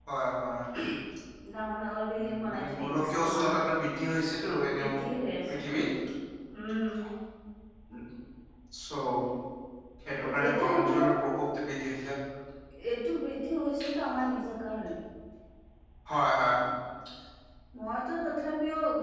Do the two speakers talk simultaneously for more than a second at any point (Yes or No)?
Yes